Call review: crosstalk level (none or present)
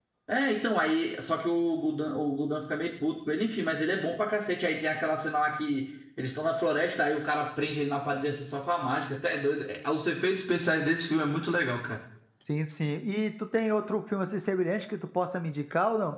none